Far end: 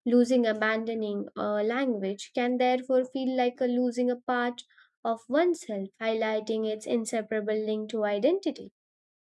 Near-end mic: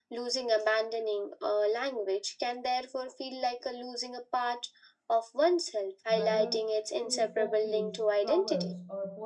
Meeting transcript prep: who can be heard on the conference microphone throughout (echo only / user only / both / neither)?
both